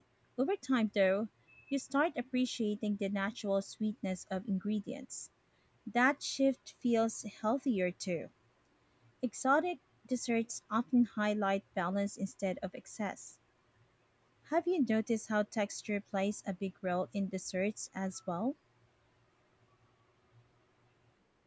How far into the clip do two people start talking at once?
none

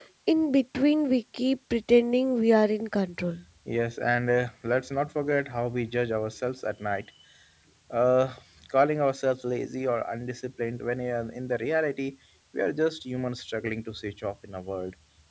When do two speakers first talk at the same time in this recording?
none

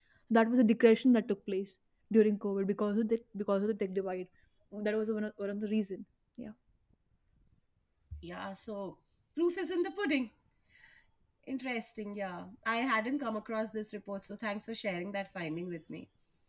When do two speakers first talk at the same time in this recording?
none

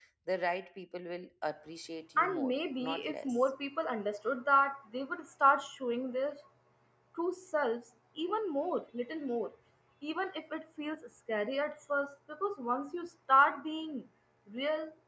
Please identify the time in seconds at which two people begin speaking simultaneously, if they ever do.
2.2 s

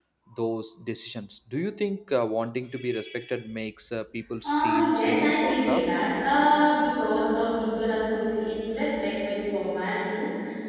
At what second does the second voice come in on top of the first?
4.4 s

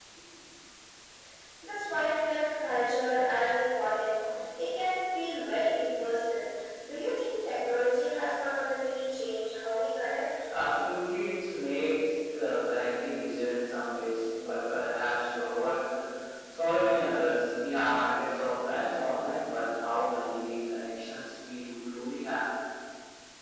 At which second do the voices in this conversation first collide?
none

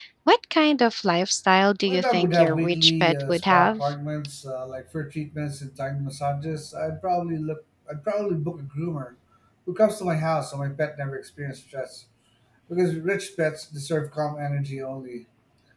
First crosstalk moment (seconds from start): 1.9 s

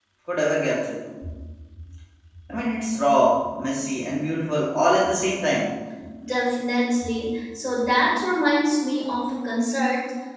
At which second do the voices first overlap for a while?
none

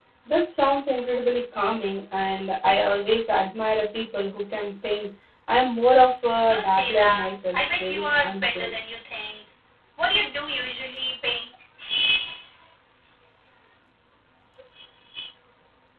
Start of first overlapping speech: 6.5 s

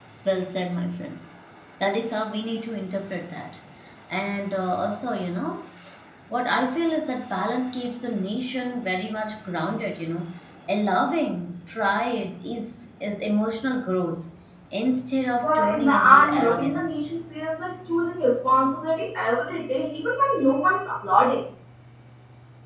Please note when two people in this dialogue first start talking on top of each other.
15.4 s

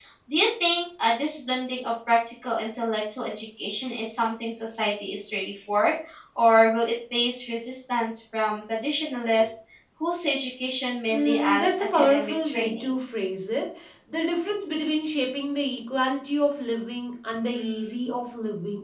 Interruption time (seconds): 11.1 s

